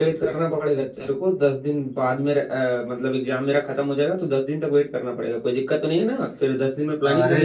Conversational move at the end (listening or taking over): taking over